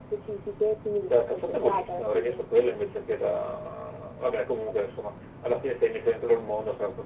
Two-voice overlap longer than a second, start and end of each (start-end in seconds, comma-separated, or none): 1.1-2.4